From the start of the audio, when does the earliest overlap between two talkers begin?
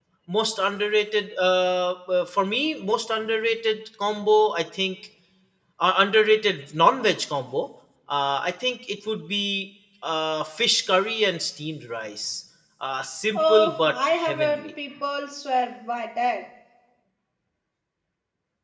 13.3 s

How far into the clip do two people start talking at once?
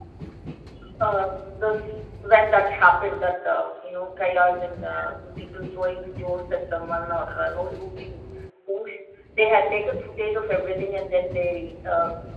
none

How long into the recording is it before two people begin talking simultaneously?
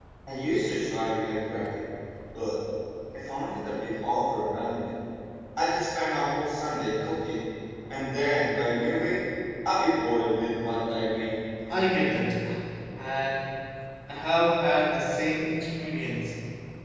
none

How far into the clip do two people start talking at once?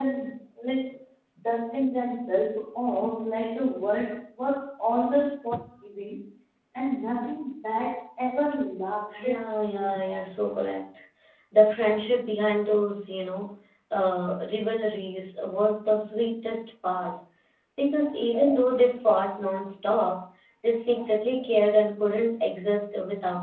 9.1 s

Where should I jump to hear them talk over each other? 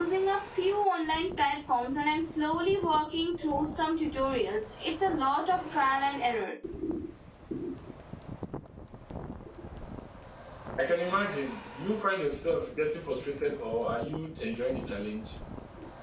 none

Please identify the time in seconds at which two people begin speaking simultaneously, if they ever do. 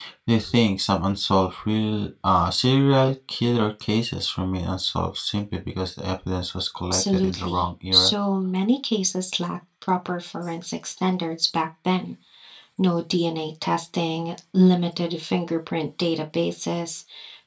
6.9 s

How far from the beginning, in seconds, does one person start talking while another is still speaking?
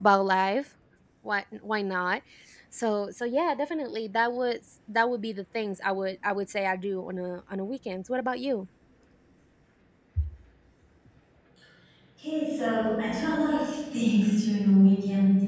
none

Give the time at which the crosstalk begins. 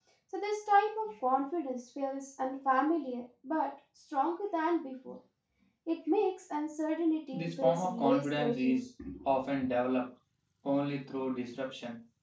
7.3 s

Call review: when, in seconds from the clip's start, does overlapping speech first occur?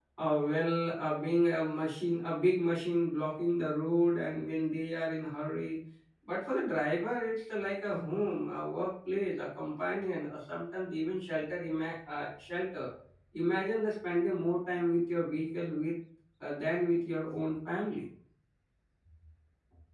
none

